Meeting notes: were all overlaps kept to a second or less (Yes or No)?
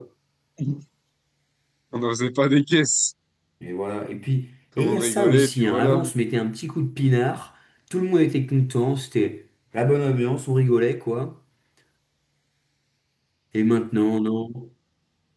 No